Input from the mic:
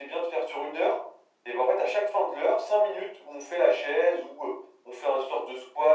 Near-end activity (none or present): none